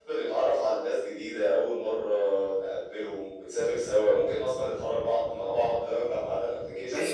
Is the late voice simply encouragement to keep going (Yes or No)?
No